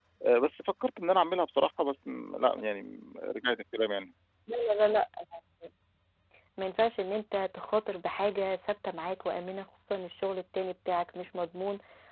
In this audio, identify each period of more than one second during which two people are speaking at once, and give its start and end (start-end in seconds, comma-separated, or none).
none